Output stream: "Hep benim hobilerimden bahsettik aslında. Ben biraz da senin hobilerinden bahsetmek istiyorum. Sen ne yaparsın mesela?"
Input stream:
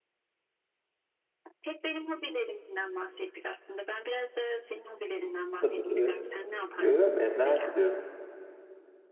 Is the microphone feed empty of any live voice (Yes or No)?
No